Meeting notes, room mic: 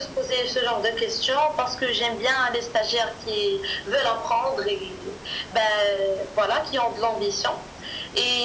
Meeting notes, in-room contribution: none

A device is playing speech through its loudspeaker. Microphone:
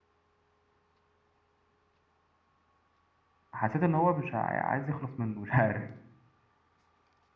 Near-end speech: present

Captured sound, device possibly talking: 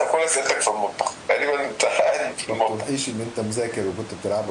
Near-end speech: present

